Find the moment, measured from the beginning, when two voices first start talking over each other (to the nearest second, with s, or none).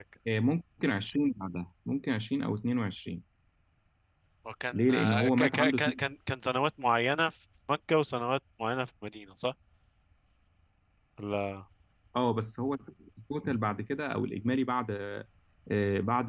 5 s